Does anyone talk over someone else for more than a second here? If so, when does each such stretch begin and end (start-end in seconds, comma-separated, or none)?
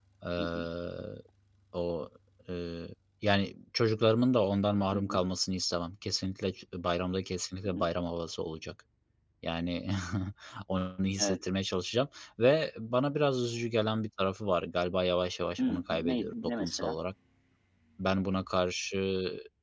15.6-17.0